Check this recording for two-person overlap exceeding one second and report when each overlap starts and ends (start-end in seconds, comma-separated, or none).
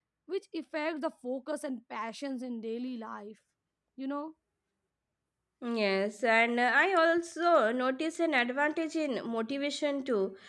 none